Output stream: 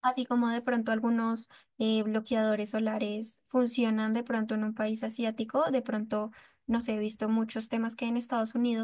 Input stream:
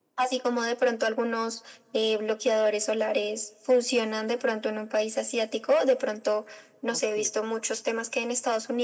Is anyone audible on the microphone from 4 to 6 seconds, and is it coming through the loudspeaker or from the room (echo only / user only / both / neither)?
echo only